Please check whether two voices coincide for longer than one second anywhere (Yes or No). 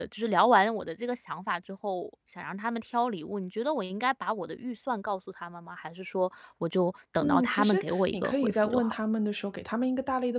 Yes